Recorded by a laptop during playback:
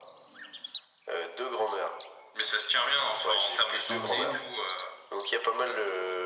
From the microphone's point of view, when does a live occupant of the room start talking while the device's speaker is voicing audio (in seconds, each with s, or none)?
3.9 s